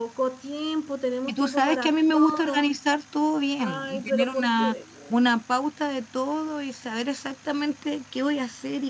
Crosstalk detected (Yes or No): Yes